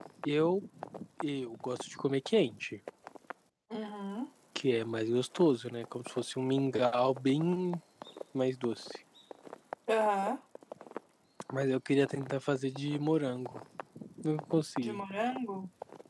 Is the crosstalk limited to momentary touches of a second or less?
Yes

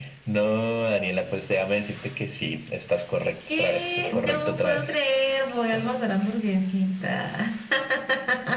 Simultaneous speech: Yes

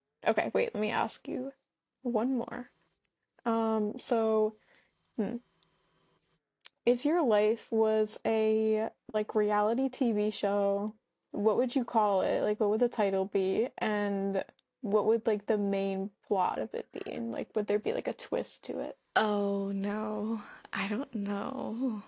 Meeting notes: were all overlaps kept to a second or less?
Yes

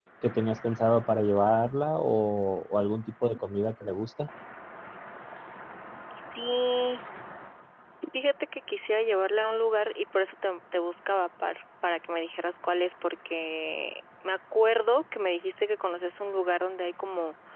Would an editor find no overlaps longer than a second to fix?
Yes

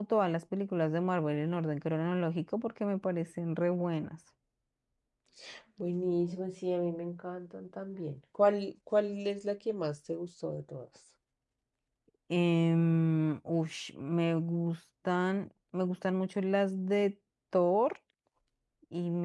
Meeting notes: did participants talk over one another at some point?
No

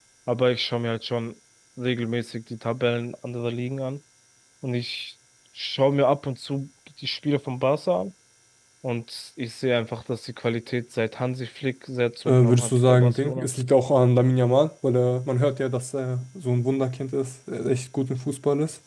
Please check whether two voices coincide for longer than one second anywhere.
Yes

